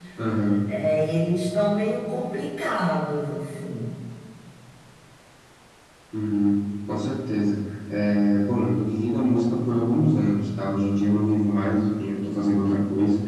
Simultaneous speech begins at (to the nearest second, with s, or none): none